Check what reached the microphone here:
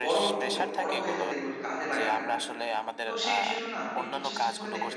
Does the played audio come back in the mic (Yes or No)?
Yes